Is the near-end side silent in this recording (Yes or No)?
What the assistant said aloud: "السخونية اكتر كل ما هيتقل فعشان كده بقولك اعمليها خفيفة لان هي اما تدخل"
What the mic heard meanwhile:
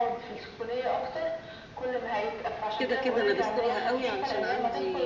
No